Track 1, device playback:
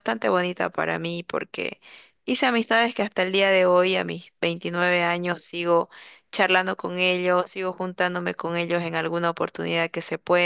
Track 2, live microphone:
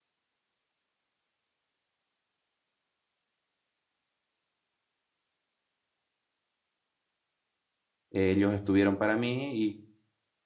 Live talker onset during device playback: 8.1 s

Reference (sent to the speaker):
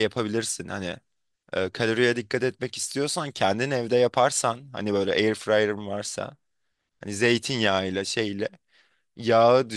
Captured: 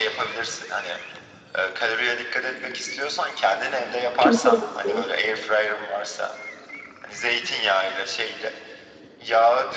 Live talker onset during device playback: 4.2 s

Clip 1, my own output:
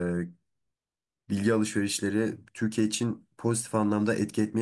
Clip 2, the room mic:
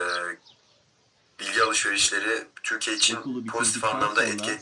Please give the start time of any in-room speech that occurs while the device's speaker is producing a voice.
3.1 s

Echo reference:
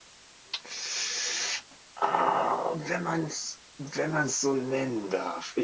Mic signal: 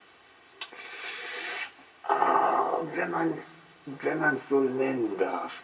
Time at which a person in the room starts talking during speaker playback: none

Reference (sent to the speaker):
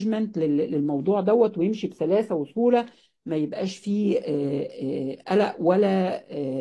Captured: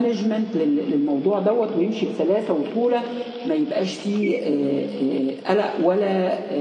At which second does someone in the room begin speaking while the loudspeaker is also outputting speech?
none

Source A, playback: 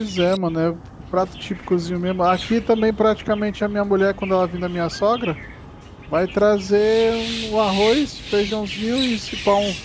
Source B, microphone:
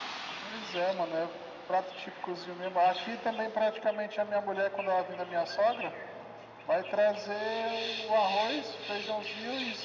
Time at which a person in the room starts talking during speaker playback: none

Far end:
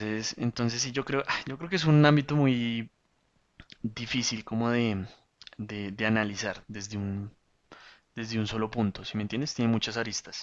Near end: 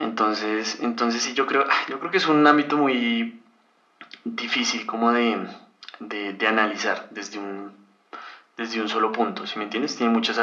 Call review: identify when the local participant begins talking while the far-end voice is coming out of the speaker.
none

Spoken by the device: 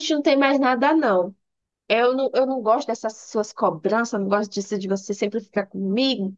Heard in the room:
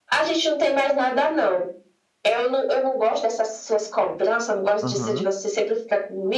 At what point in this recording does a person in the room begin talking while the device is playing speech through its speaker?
4.8 s

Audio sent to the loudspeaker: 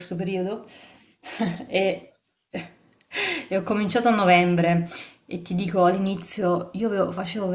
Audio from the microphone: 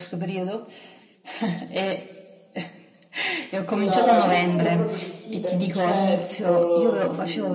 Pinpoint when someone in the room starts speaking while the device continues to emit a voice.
3.7 s

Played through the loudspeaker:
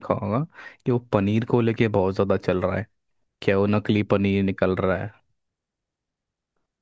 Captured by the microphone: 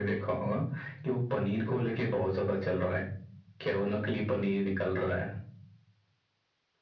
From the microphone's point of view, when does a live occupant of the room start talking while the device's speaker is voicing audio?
none

